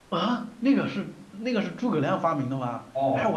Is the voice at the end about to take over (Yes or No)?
Yes